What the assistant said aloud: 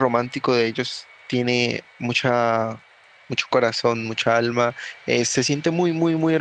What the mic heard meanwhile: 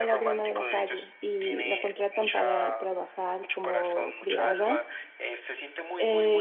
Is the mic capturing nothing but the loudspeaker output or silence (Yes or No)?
No